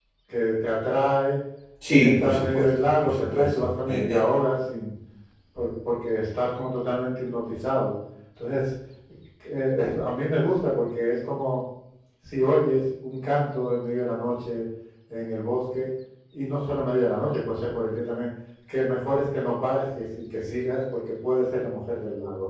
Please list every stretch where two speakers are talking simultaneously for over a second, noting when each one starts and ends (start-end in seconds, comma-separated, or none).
1.9-4.2